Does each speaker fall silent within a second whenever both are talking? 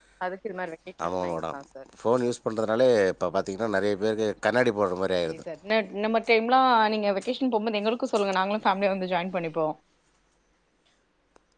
Yes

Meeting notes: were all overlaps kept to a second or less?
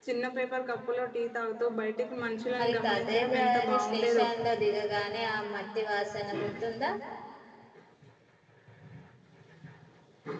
No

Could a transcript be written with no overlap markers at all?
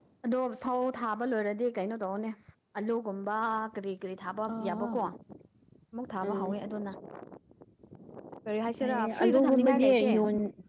No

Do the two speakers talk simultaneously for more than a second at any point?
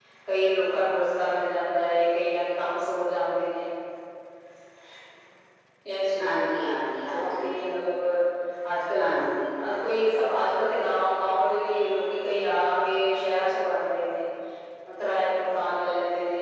No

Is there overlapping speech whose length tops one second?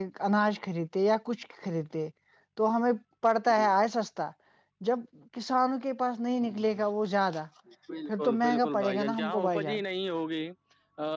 Yes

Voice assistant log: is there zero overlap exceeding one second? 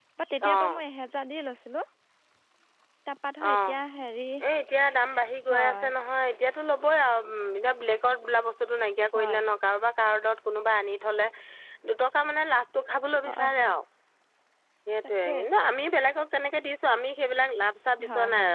Yes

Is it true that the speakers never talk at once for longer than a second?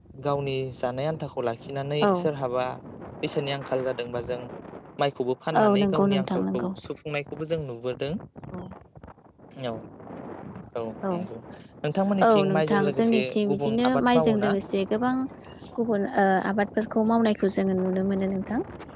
No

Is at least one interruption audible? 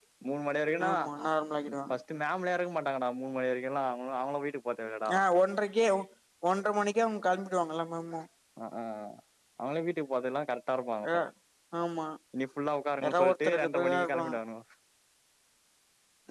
Yes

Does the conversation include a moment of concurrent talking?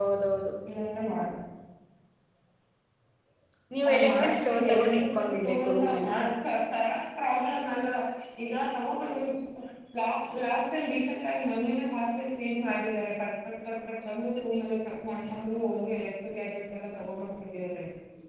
Yes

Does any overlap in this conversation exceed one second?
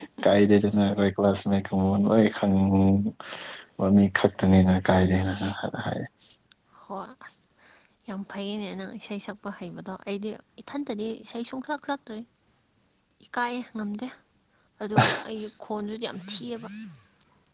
No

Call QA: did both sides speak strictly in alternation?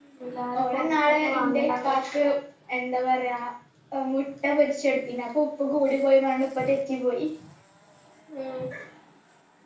No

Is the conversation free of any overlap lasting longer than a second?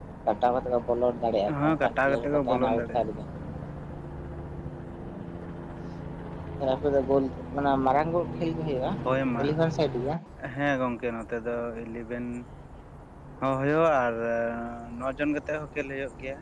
No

